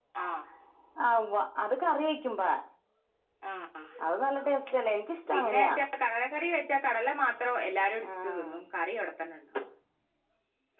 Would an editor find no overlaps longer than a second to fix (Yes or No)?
Yes